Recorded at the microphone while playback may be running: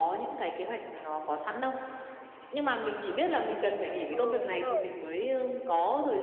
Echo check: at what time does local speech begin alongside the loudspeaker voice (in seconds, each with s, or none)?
4.1 s